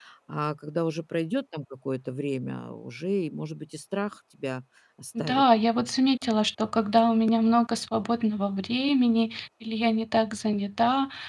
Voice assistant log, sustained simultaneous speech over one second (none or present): none